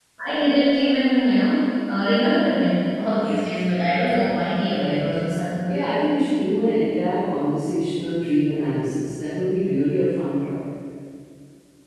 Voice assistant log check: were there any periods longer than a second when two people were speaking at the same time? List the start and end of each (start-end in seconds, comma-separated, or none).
none